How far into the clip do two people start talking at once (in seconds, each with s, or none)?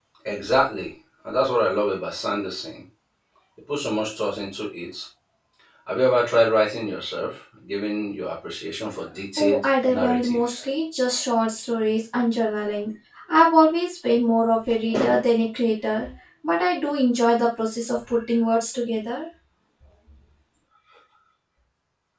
9.4 s